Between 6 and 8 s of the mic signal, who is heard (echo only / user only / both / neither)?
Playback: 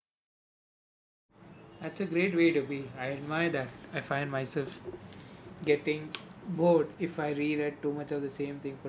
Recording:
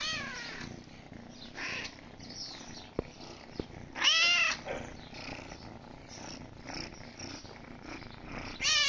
neither